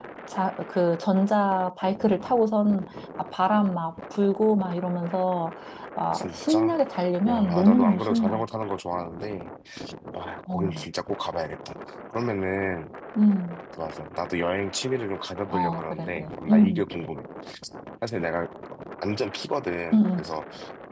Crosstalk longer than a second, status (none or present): present